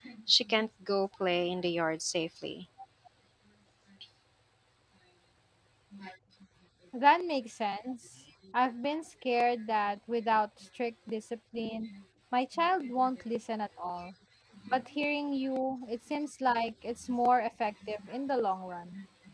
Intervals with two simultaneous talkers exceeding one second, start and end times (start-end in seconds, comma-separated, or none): none